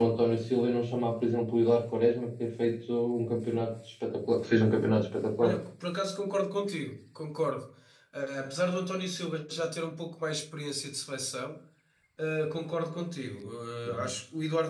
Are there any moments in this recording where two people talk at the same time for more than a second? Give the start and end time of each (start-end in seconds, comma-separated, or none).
none